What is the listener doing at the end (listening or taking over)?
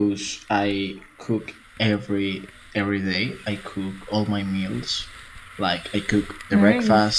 listening